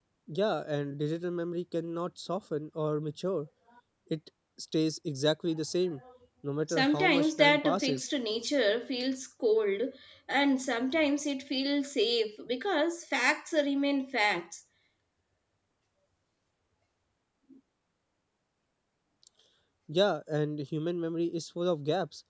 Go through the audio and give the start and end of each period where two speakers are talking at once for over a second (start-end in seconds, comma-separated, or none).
6.7-8.1